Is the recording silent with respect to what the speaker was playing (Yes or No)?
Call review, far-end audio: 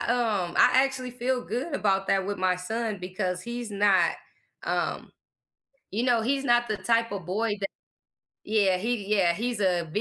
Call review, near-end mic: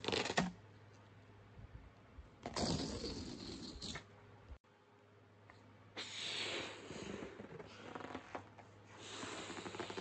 Yes